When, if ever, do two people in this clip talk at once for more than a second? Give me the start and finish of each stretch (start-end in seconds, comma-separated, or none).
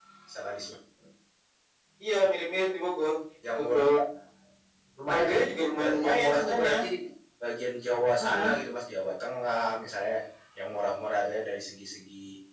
5.1-6.7